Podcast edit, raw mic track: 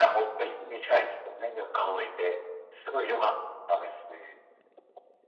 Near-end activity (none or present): none